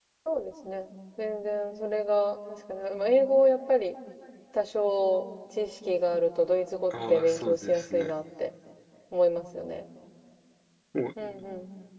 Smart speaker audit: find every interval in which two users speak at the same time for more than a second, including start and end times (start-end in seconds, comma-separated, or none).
6.9-8.1